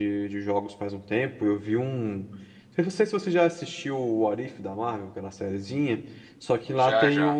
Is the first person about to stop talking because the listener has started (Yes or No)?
No